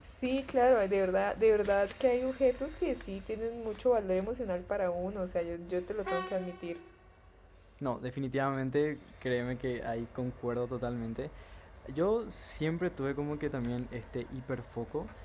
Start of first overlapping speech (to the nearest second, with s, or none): none